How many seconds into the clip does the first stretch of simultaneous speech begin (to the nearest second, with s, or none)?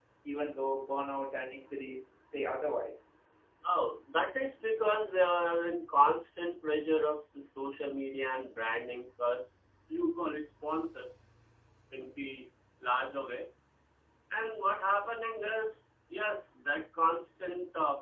none